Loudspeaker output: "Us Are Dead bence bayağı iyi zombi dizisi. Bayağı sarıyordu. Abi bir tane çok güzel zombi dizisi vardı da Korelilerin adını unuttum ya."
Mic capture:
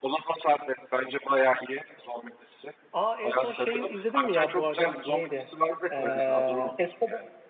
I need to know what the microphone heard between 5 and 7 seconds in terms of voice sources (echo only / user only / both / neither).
both